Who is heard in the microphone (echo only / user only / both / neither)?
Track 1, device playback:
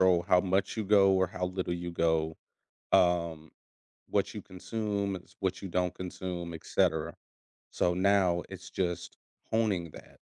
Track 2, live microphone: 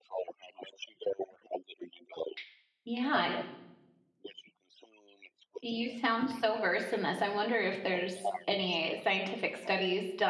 both